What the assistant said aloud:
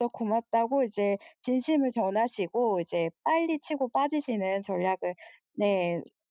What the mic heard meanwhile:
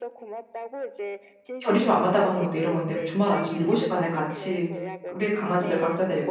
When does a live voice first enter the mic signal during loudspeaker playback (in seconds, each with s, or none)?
1.6 s